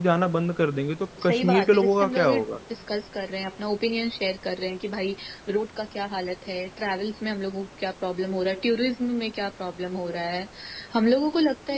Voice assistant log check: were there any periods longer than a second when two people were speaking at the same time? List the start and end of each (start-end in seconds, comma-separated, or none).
1.2-2.5